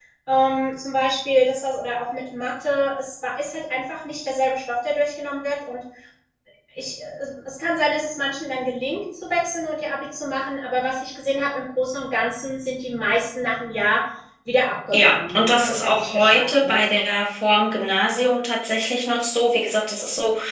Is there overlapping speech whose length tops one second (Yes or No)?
Yes